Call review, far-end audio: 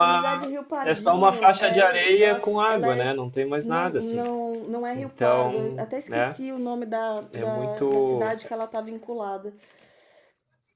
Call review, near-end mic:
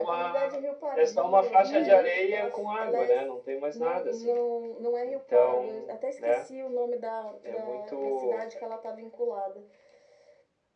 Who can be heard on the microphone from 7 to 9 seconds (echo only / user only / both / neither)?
echo only